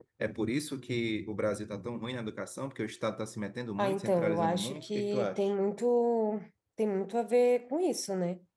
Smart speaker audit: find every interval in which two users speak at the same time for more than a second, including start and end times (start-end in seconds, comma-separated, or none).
3.8-5.5